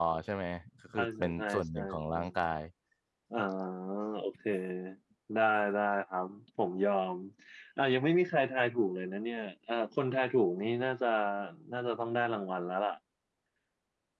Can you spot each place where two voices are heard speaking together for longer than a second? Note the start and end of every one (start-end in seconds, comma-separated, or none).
1.0-2.2